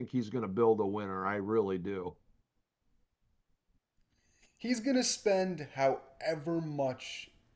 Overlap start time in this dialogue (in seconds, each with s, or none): none